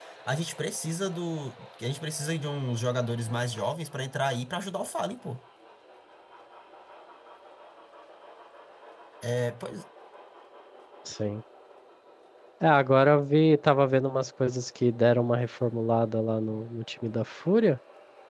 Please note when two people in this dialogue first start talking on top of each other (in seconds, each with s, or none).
none